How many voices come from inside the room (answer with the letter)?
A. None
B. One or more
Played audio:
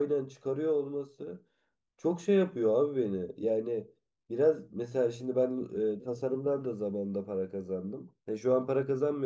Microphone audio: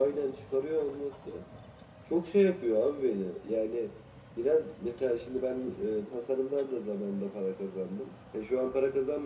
A